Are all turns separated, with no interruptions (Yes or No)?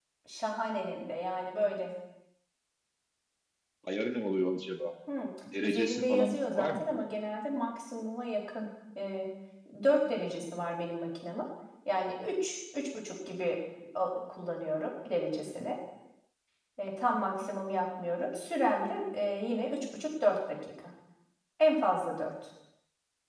No